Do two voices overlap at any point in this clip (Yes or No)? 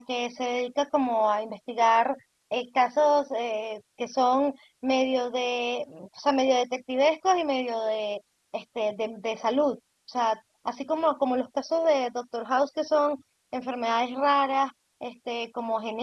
No